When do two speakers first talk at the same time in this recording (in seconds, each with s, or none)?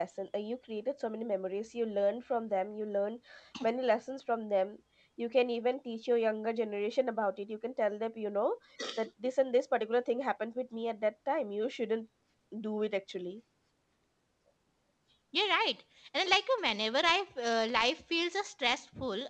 none